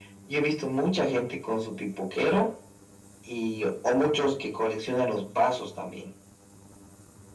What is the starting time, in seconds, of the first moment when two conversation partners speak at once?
none

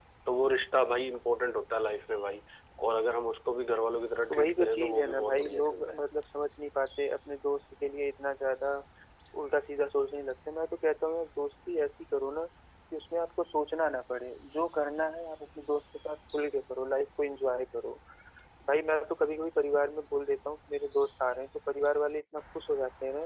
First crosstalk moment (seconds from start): 4.3 s

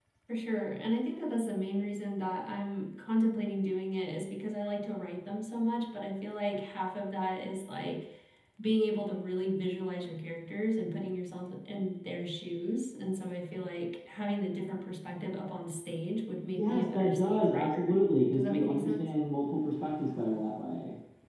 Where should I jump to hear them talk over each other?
16.6 s

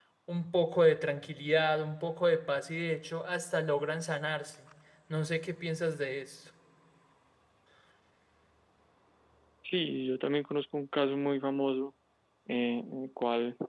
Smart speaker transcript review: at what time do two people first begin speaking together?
none

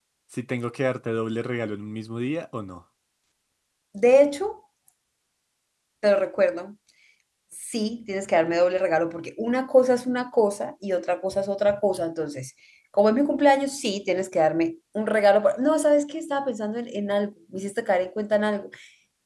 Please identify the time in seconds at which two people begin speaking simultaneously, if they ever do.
none

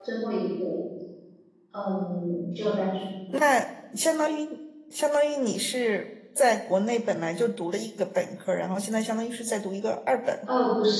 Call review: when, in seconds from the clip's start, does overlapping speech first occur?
none

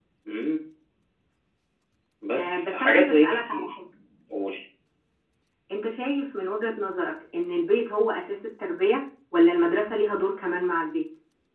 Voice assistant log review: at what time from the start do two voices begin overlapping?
2.4 s

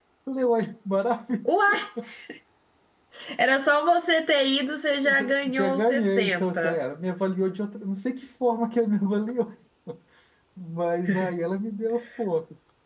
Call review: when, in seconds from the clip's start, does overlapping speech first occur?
5.0 s

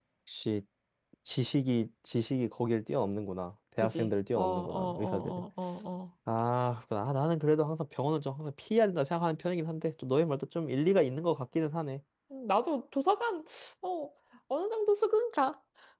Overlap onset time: 3.8 s

